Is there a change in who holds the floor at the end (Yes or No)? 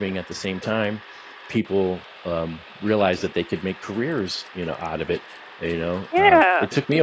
No